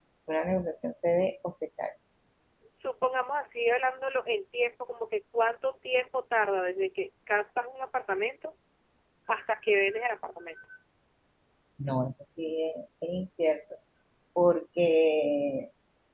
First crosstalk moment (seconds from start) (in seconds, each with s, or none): none